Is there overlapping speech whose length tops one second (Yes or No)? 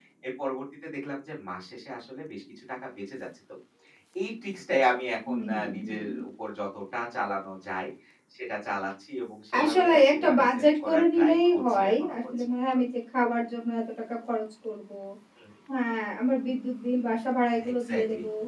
Yes